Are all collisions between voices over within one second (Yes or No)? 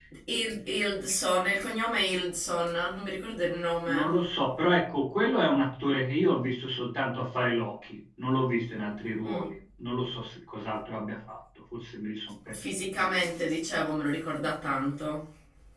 Yes